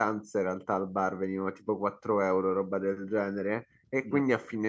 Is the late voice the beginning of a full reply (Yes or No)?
No